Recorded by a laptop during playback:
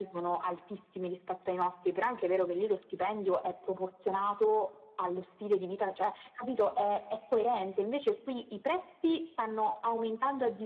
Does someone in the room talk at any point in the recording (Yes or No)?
No